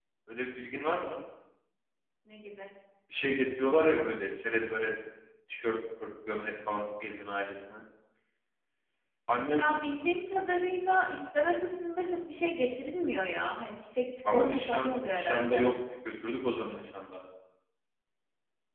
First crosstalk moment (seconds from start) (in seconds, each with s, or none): 14.2 s